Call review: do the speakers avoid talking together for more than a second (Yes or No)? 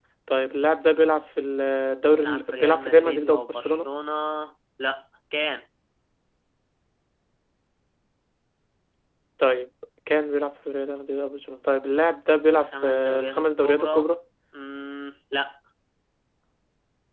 No